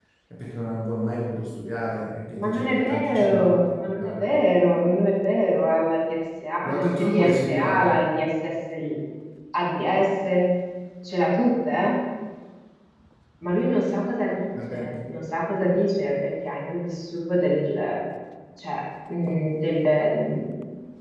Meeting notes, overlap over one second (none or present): present